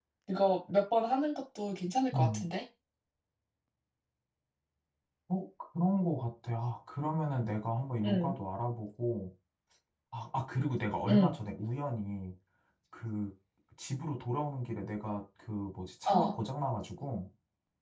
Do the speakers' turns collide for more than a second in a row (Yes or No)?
No